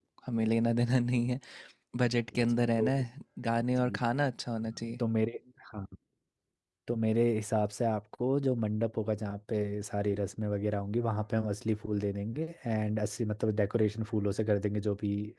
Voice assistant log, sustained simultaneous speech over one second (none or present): none